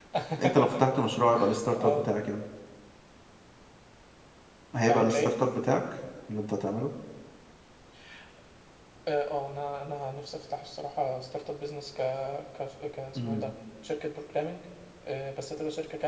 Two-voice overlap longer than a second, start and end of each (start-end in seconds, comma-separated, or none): none